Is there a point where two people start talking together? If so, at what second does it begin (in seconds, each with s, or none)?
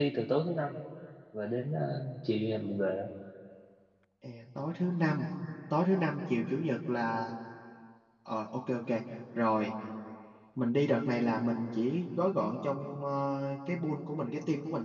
none